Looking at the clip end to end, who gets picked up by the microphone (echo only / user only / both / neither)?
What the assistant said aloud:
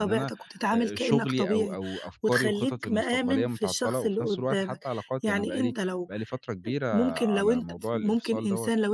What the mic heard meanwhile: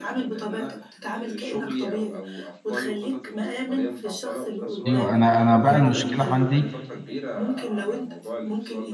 both